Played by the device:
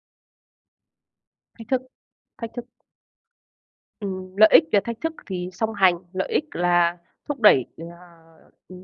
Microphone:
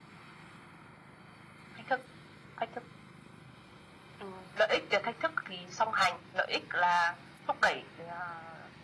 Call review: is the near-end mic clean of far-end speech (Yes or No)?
No